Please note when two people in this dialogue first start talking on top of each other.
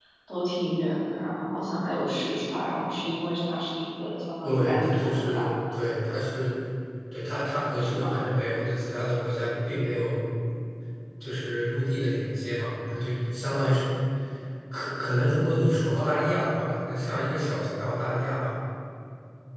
4.4 s

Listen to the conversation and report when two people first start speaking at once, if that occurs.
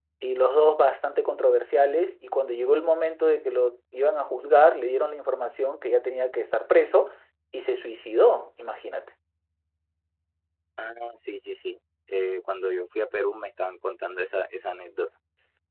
none

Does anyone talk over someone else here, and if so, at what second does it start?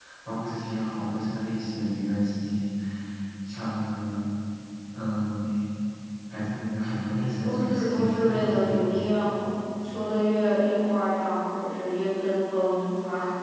7.4 s

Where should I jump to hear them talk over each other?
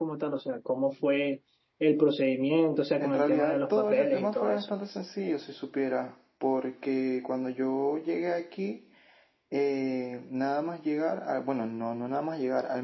3.0 s

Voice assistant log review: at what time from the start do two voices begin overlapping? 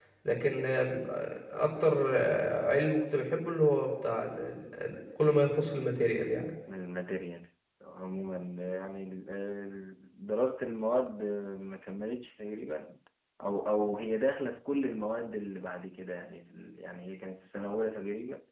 none

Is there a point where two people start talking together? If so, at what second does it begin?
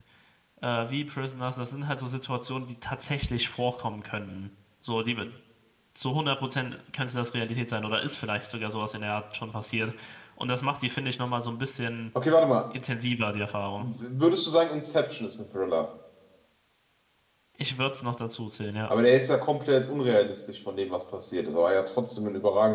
none

